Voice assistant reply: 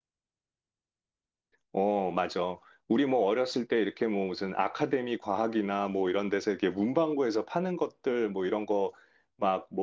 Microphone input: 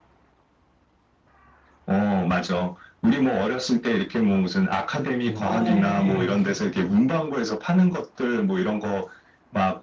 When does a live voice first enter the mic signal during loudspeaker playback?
5.2 s

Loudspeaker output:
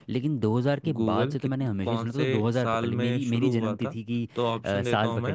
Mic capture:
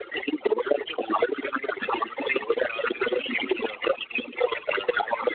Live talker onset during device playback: none

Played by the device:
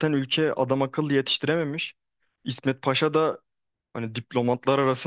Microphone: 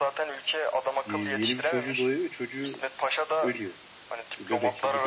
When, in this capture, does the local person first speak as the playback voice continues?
1.1 s

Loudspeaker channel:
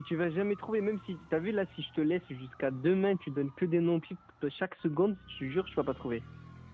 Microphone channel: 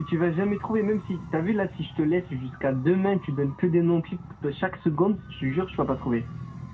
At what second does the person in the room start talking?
none

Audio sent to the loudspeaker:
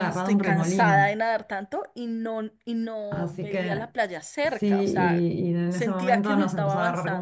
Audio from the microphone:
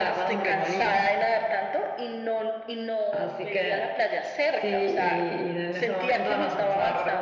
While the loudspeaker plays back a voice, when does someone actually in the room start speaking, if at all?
none

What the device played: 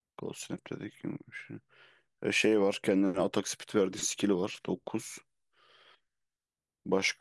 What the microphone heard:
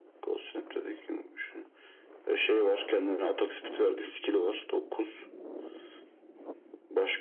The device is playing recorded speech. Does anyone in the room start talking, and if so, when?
none

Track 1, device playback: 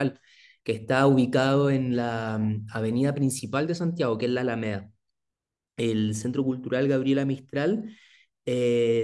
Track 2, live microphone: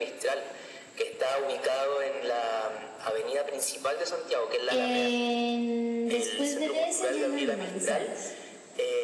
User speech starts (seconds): 4.7 s

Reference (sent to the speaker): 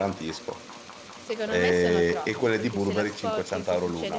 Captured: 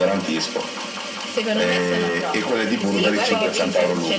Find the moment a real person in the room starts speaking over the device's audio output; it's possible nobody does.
2.8 s

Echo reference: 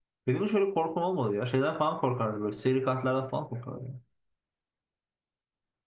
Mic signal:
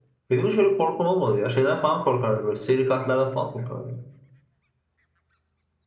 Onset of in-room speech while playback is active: none

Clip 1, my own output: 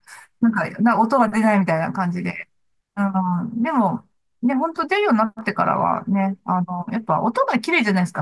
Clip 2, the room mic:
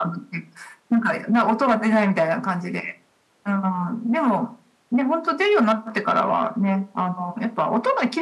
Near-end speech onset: none

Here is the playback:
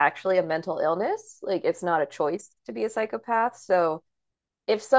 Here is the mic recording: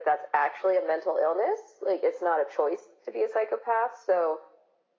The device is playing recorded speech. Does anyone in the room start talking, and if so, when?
none

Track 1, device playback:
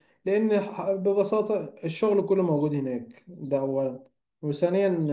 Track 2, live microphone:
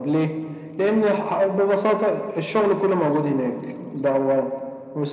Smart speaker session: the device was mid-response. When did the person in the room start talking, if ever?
none

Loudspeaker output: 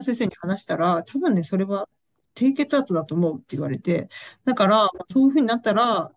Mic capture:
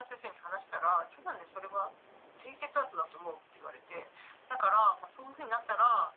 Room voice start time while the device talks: none

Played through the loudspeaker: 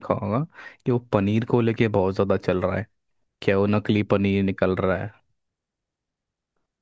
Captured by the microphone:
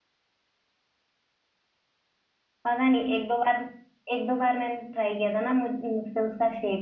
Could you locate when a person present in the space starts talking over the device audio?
2.6 s

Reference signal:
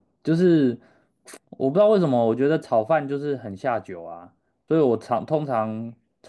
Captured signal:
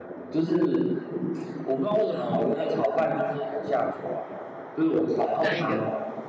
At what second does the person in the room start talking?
5.3 s

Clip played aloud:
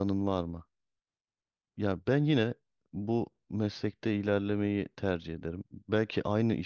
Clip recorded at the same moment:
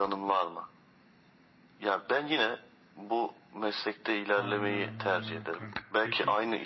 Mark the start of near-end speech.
4.3 s

